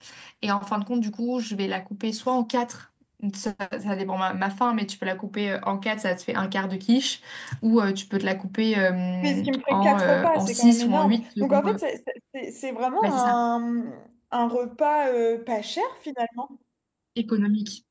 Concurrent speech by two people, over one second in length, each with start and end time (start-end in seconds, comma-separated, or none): 9.2-11.8